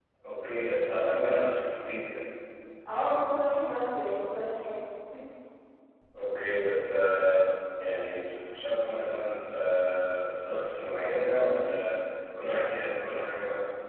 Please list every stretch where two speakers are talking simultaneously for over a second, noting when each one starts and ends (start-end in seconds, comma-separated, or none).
none